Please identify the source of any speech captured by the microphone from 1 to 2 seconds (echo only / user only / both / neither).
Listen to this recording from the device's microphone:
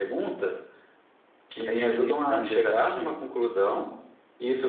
both